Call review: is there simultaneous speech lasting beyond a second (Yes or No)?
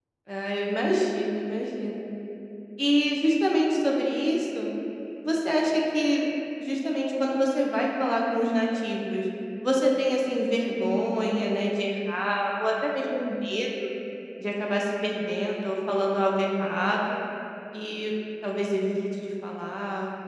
No